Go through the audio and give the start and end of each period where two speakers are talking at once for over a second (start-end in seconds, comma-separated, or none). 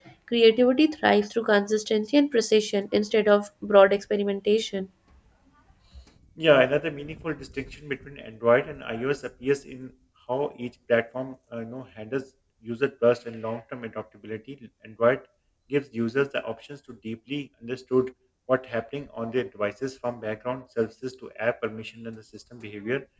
none